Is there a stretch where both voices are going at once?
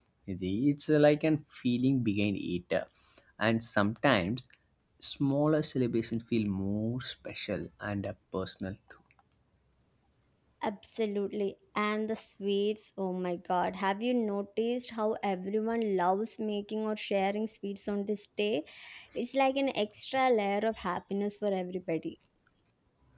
No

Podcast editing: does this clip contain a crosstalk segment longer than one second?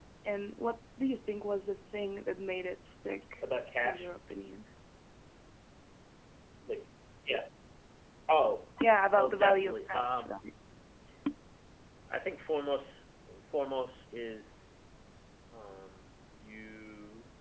Yes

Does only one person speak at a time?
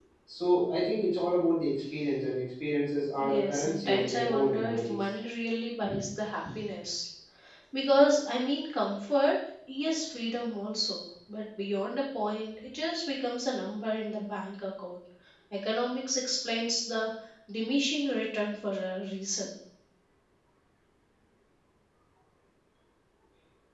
No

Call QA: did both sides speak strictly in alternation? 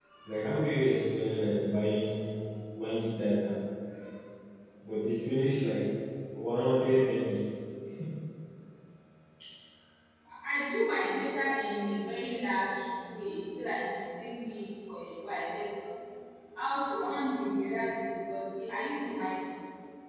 Yes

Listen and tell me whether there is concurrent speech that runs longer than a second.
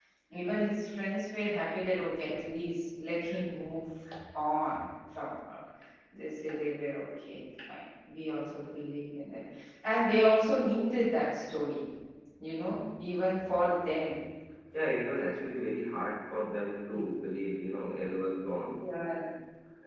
No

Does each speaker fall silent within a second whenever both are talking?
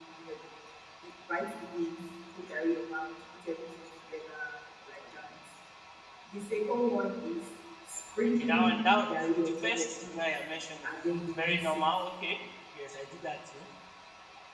No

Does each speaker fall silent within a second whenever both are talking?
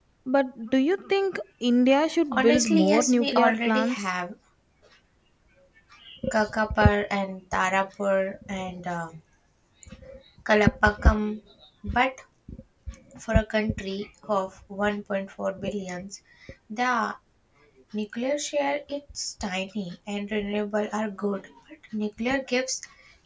No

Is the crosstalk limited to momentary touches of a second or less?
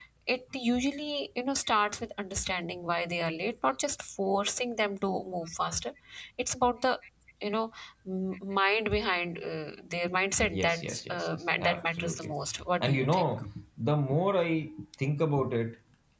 No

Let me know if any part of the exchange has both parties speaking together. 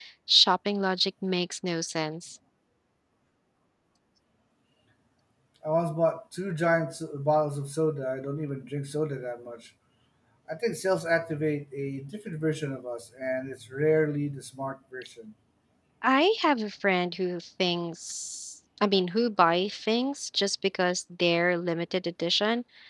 No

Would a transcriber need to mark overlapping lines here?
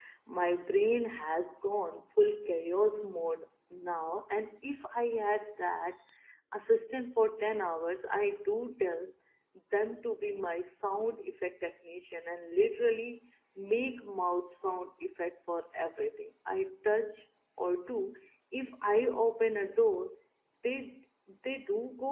No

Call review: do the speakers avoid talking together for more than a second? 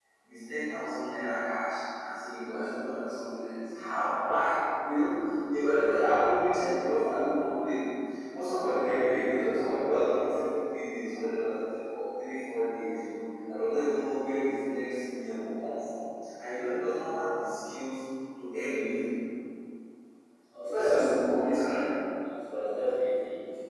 Yes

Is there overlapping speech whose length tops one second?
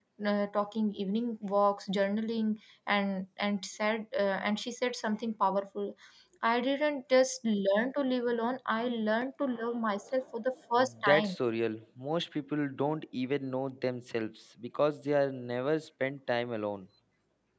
No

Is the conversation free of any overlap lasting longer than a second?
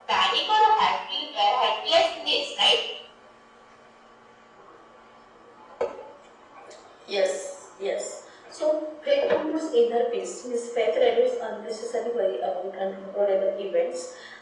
Yes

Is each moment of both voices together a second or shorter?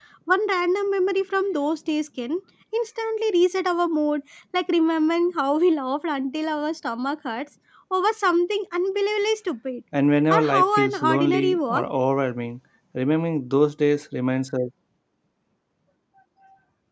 No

